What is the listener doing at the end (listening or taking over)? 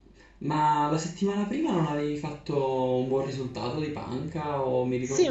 taking over